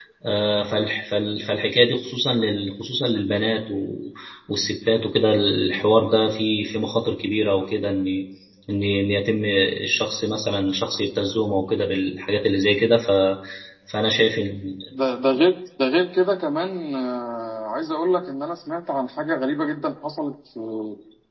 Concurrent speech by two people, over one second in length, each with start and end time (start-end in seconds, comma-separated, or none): none